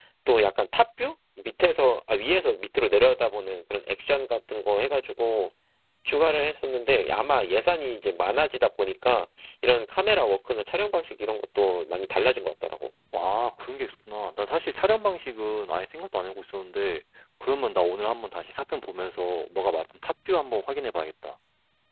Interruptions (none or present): none